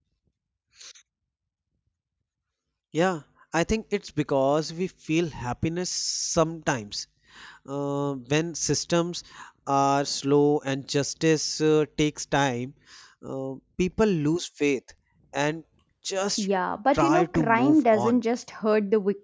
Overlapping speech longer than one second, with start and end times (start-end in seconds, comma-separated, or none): 16.9-18.2